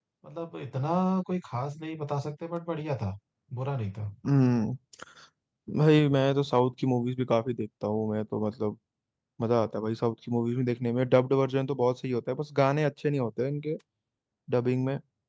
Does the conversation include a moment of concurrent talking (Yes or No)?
No